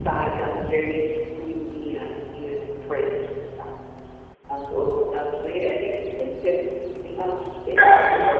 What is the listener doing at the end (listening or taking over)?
taking over